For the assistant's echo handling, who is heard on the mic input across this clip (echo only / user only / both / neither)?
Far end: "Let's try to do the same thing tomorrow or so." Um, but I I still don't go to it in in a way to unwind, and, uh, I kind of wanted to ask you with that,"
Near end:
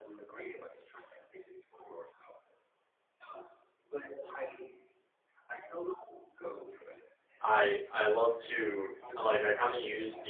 both